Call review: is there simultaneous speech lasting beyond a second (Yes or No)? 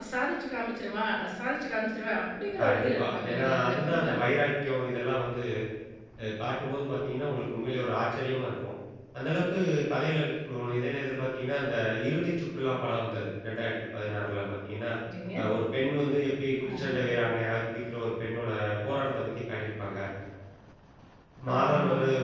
Yes